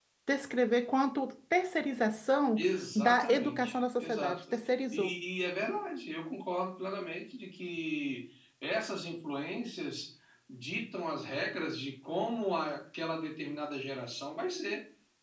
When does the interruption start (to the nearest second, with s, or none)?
3 s